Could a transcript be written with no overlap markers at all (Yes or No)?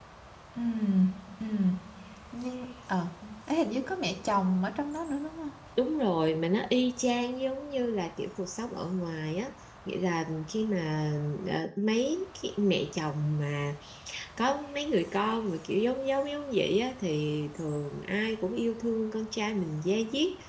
Yes